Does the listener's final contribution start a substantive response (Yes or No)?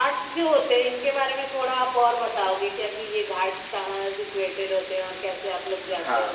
Yes